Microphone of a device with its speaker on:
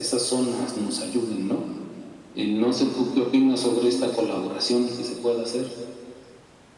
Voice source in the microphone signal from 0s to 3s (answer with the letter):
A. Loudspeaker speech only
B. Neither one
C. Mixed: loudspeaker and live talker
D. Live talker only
A